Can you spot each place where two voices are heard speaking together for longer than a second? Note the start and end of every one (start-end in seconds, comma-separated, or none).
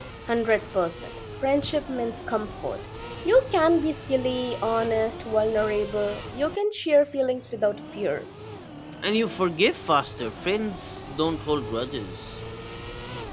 none